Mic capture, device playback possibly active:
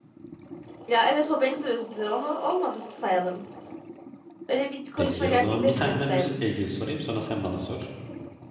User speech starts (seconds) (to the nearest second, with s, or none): 5 s